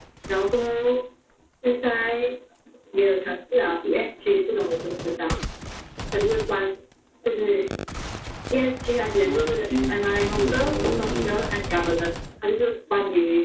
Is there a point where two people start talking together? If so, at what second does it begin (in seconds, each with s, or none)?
9.2 s